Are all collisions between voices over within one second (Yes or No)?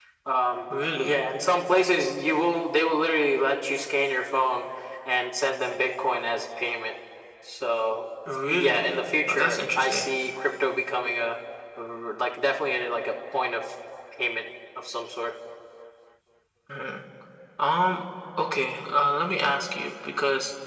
No